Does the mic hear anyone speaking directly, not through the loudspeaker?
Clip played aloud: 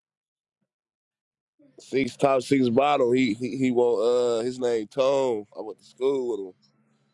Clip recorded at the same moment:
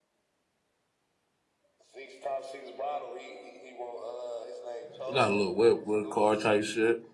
Yes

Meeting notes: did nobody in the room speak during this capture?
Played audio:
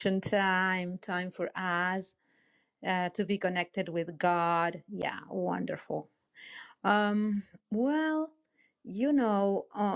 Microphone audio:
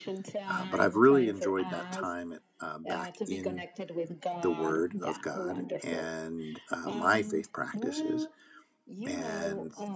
No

